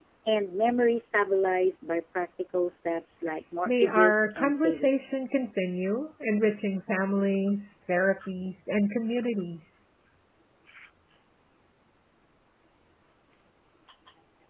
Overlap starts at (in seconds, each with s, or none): 3.7 s